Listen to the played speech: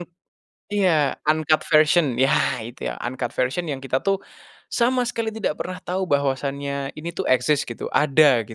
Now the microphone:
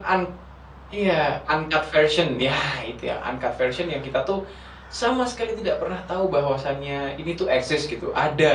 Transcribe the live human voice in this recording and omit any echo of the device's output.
none

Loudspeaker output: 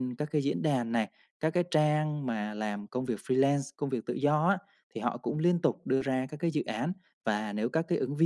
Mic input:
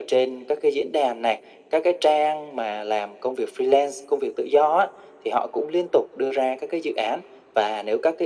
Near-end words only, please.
none

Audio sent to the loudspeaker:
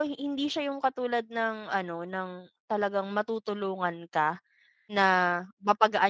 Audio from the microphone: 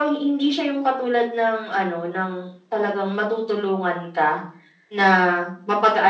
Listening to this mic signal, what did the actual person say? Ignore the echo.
none

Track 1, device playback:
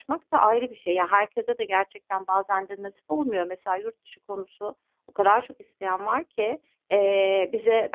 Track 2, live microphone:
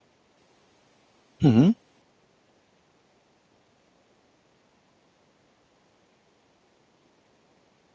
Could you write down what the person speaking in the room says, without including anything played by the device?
Hı hı.

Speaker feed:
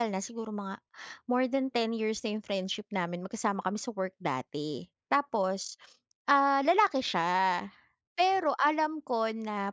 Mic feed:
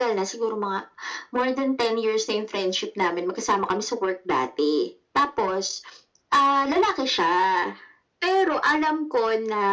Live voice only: none

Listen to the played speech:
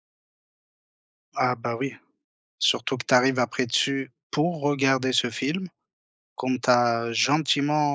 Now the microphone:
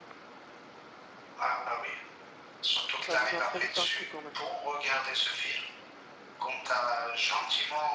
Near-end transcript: ça devient très vite un coup, quand même,

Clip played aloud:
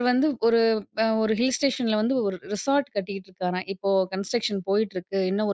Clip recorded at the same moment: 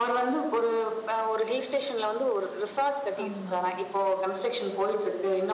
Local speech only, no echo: ஆமா.

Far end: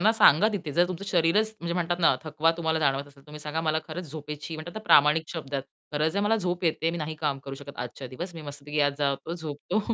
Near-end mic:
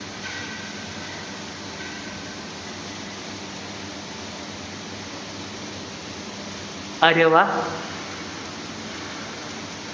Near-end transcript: अरे वाह!

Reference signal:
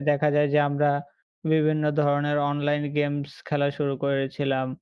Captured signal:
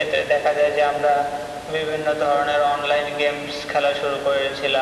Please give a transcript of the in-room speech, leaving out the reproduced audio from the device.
none

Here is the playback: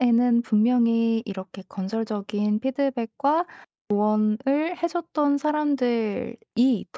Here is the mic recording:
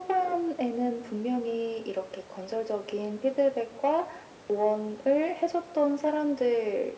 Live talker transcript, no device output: none

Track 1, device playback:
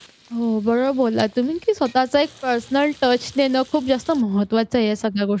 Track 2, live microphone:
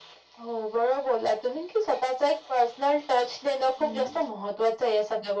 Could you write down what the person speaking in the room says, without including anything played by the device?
हं.

